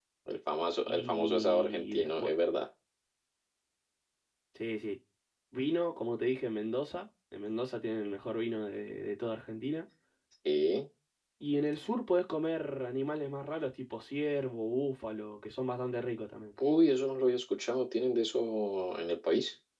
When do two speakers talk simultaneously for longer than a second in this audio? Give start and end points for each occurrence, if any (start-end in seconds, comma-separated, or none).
0.8-2.3